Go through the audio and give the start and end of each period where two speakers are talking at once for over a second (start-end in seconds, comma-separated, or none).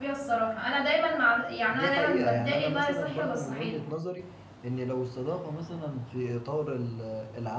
1.7-3.8